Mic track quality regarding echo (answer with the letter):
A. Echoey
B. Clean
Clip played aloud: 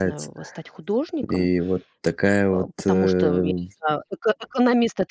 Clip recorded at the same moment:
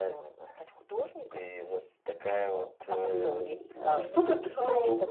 A